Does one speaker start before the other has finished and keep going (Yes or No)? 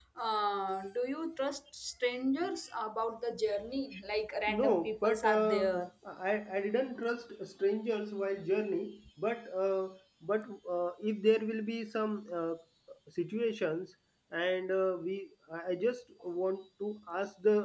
Yes